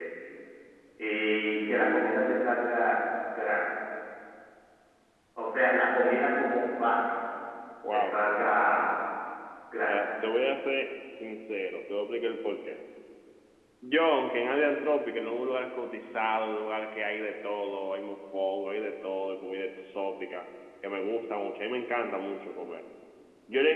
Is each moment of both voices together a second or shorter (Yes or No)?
Yes